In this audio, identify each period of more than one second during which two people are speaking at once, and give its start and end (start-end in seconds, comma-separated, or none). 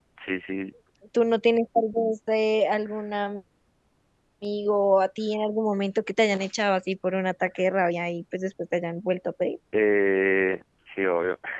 none